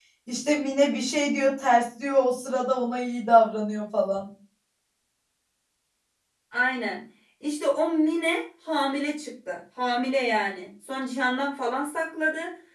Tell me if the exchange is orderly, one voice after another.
Yes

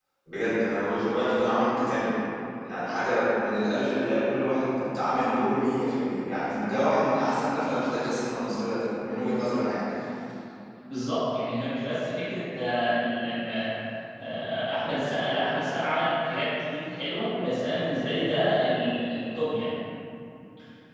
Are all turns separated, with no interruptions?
Yes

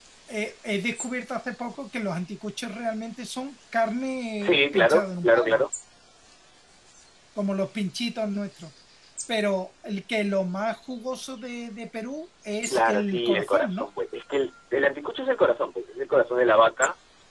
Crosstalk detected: Yes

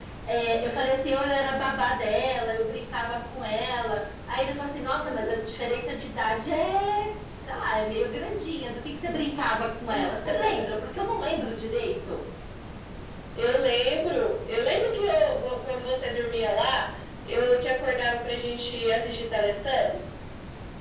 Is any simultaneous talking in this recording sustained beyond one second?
No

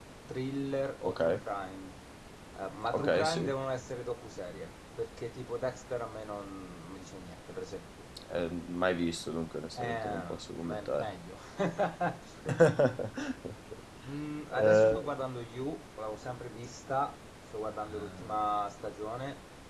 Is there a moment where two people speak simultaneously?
Yes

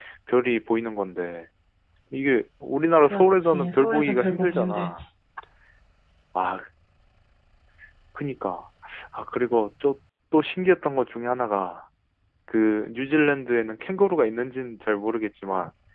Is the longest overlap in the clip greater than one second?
Yes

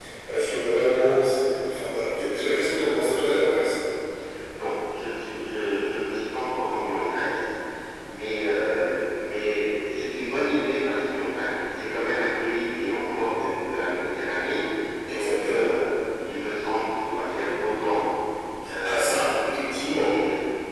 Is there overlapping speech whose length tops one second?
Yes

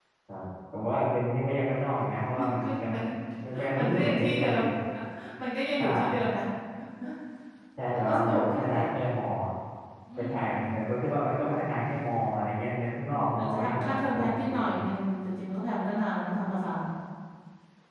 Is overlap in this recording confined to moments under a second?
No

